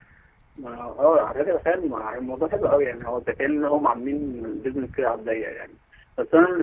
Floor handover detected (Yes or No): No